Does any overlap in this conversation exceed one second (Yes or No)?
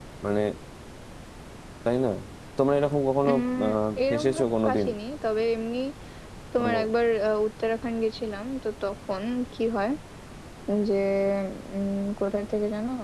Yes